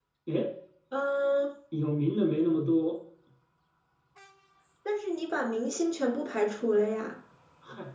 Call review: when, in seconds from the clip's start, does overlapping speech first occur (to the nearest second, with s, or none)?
none